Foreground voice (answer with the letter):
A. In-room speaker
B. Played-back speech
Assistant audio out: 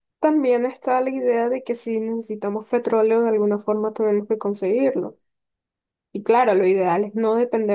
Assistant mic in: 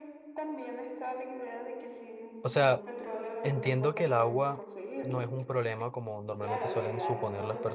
A